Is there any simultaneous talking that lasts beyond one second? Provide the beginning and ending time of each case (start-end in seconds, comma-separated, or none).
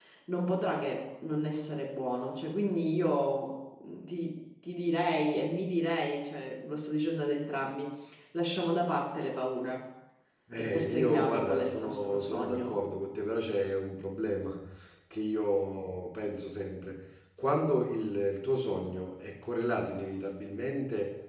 10.6-12.8